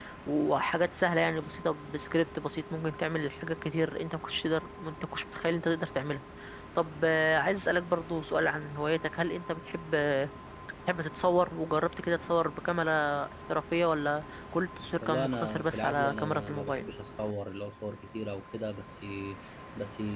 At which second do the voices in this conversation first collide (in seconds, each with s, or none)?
15.0 s